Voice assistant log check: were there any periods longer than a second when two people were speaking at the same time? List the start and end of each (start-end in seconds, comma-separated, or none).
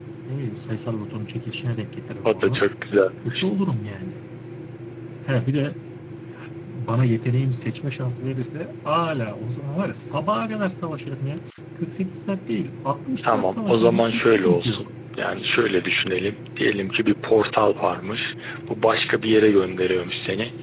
13.2-14.9